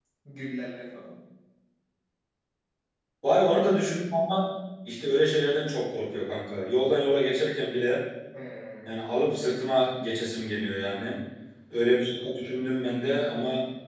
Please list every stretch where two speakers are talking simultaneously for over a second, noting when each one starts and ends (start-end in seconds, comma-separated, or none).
none